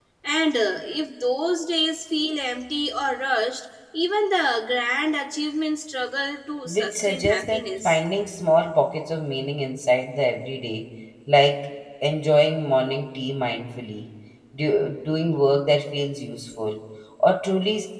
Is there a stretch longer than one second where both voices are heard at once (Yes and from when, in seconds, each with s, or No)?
Yes, from 6.6 s